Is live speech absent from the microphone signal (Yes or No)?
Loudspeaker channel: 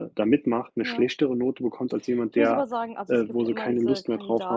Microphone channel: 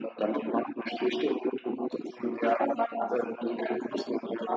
Yes